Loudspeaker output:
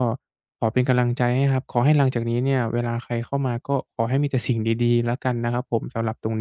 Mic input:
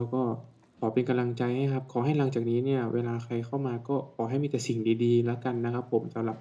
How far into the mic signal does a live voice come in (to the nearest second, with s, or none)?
none